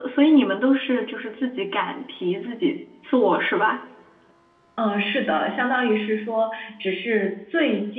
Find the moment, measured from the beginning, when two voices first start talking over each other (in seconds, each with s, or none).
none